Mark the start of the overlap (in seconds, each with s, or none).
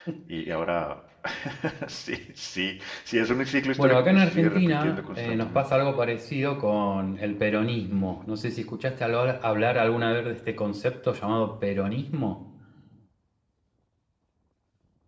3.8 s